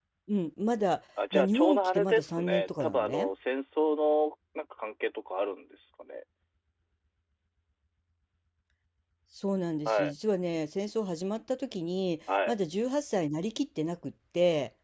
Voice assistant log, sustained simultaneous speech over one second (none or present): present